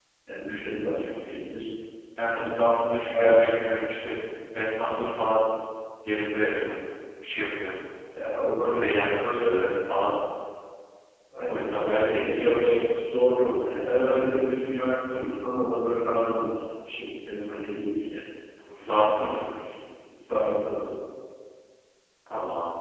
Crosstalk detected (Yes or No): Yes